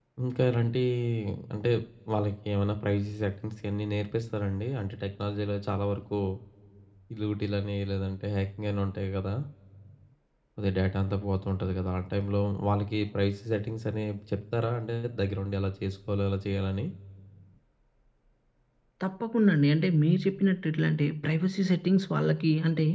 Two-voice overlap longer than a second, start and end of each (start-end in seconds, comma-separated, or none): none